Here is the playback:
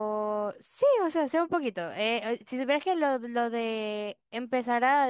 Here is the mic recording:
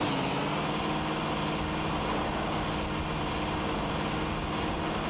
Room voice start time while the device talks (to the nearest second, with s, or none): none